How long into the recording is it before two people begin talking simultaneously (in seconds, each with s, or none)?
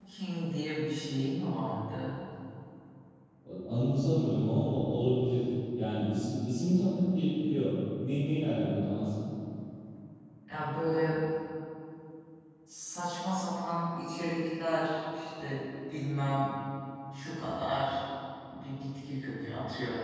none